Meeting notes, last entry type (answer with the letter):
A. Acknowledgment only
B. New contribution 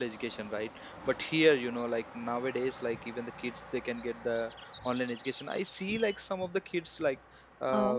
A